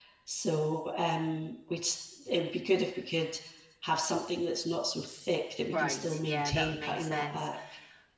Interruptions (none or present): present